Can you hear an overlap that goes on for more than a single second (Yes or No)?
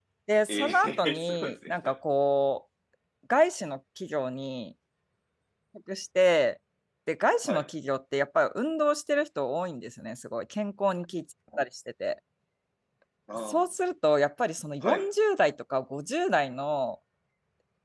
Yes